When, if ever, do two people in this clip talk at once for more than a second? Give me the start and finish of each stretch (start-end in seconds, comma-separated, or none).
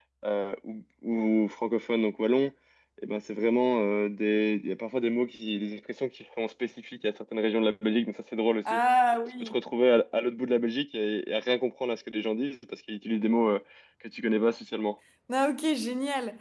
none